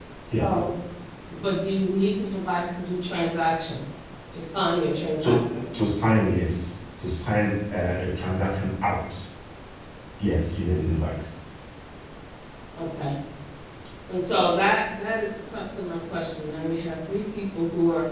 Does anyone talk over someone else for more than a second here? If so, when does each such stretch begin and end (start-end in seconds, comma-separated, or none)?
none